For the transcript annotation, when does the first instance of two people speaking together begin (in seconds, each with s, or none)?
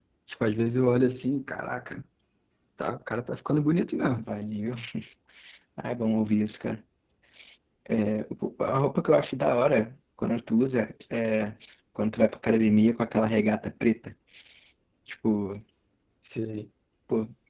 none